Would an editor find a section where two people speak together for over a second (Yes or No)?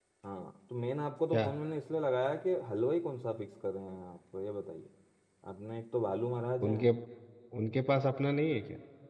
No